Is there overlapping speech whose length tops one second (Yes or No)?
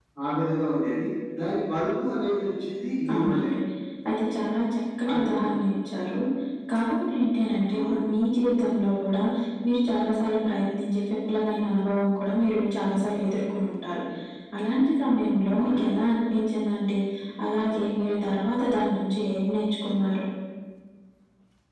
No